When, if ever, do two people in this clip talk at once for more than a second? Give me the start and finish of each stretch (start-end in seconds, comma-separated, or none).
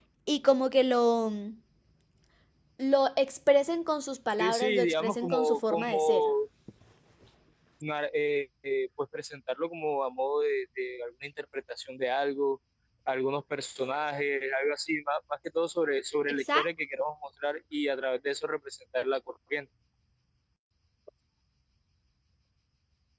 4.4-6.2